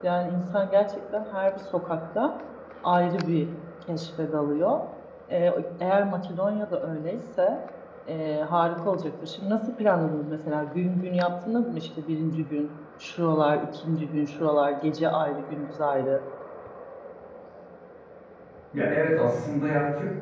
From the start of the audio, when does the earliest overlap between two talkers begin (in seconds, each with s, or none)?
none